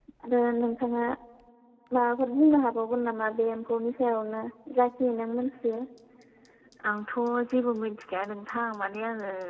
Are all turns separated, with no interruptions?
Yes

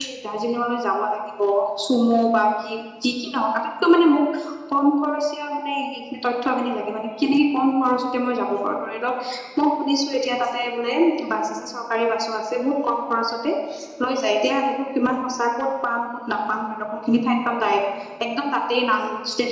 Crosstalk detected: No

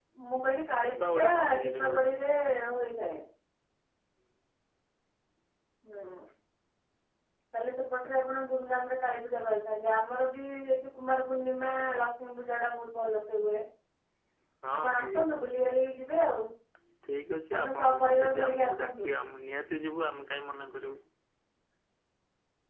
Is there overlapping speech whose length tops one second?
Yes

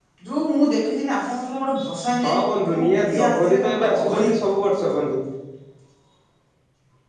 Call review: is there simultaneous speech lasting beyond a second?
Yes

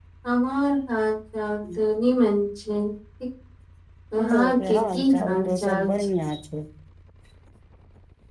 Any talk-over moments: Yes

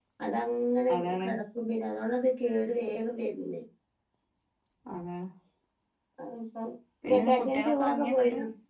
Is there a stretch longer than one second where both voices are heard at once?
Yes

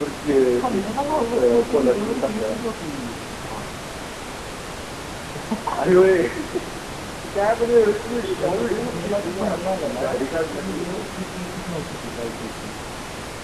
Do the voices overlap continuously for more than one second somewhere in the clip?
Yes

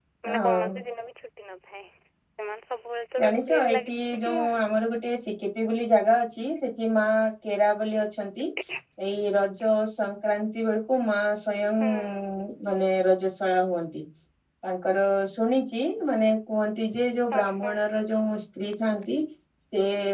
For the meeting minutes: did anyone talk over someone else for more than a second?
Yes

